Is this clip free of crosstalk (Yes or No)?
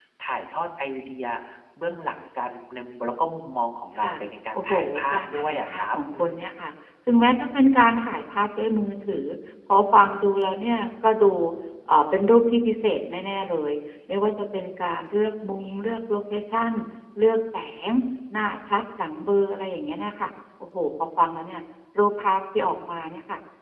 No